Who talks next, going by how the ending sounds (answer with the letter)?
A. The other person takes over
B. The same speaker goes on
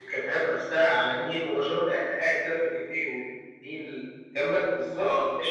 A